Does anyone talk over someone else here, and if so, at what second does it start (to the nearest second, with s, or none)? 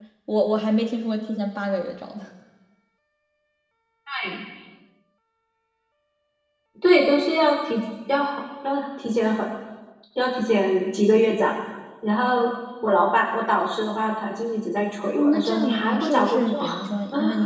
15 s